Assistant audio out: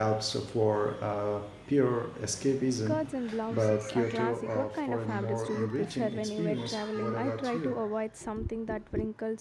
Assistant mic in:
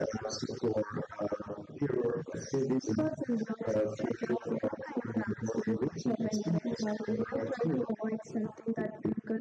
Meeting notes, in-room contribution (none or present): none